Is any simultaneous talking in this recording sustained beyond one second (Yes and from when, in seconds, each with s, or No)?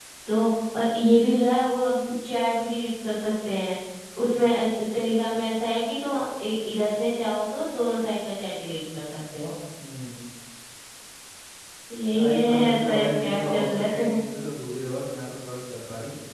Yes, from 12.1 s